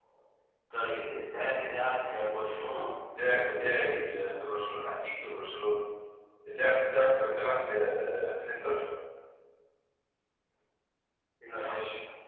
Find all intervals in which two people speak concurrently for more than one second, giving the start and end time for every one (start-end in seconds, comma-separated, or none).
none